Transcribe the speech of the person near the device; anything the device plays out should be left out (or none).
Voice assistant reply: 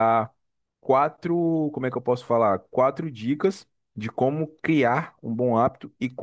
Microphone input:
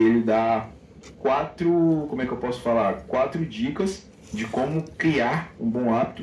none